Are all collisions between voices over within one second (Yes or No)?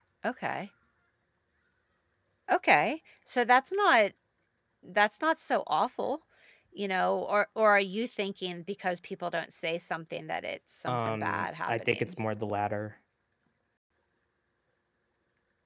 No